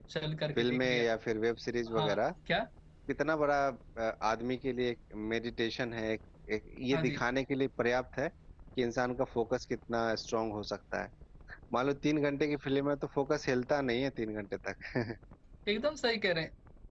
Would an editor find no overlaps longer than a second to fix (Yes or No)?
Yes